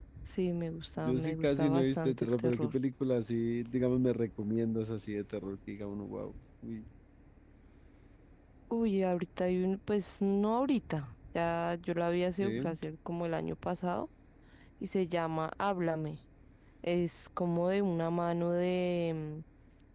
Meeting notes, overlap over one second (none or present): present